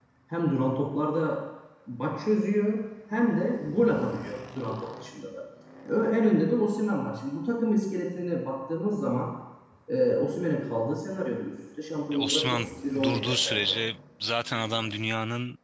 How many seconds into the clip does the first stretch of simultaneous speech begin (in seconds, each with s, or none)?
12.1 s